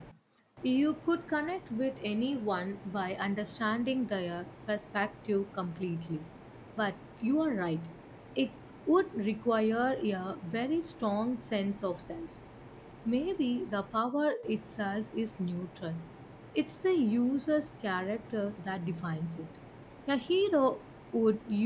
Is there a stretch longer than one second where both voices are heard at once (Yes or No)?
No